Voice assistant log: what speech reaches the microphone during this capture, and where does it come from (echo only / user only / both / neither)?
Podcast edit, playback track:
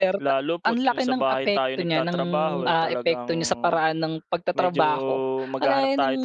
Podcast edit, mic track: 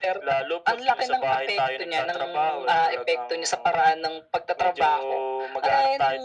echo only